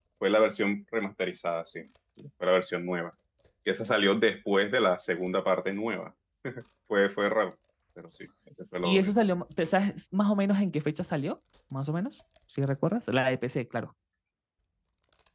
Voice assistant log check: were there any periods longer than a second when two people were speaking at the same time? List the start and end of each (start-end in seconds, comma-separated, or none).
none